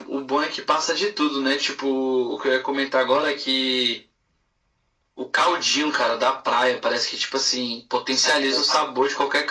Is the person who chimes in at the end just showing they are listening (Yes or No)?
Yes